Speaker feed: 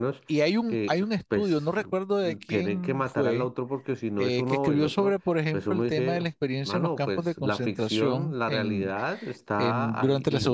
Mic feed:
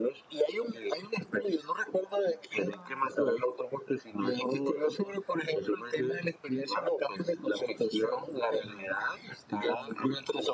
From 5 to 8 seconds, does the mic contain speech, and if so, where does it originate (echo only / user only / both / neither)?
echo only